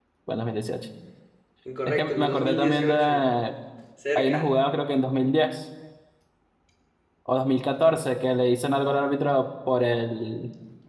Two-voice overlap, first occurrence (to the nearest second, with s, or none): 2 s